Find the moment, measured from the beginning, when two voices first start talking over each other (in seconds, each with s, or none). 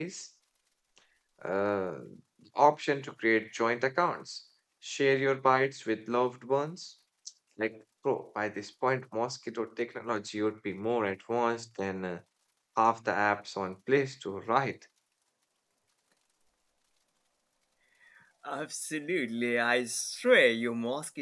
none